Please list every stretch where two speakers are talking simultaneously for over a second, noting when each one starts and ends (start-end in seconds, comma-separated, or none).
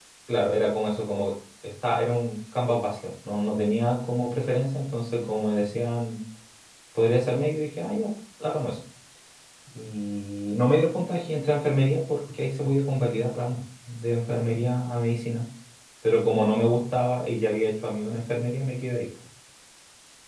none